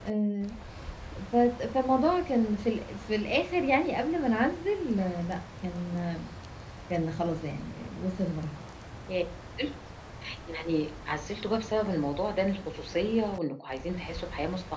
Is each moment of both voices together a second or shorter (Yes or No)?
Yes